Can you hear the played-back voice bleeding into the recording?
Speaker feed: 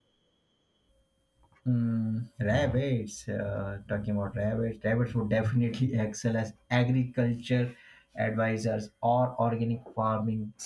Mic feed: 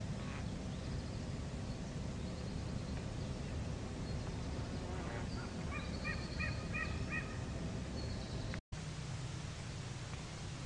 No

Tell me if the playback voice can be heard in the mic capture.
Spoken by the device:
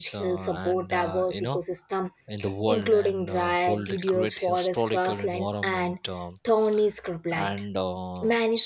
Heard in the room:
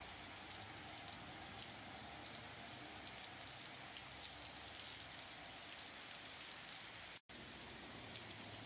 No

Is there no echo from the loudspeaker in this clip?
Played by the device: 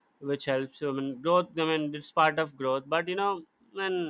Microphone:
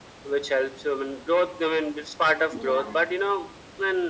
No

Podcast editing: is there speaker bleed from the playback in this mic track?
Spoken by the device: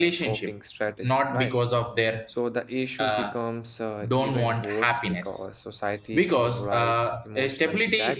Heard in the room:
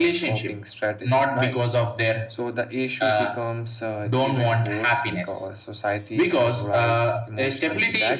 Yes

